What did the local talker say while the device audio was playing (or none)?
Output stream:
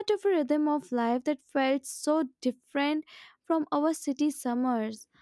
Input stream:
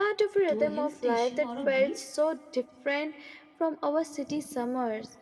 to a hill station or a beach?